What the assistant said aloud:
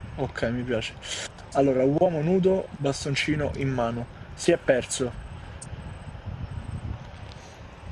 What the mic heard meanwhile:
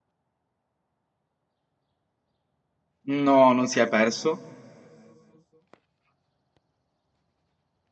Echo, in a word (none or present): none